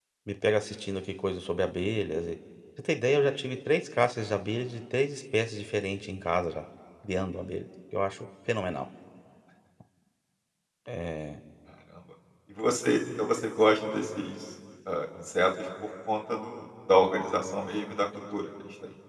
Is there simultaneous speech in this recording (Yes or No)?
No